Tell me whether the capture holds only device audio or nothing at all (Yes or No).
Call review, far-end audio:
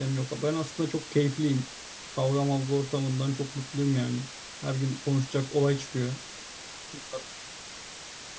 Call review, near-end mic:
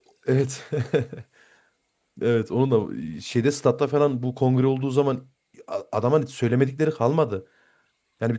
No